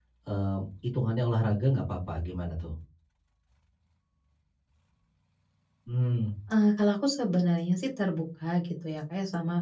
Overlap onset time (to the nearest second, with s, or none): none